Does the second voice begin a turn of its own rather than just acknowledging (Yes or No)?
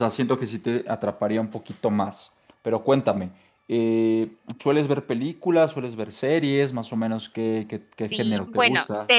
Yes